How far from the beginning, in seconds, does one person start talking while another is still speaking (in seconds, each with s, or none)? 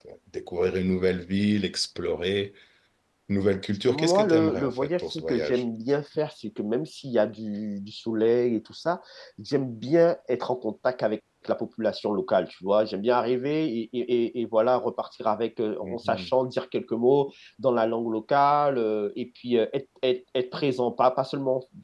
3.9 s